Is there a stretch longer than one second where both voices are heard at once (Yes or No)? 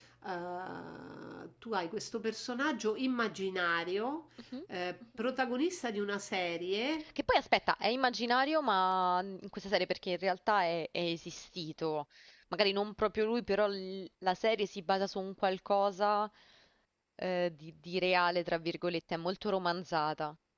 No